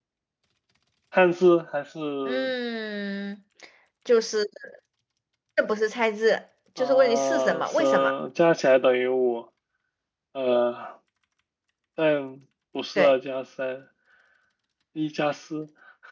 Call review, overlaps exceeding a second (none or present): present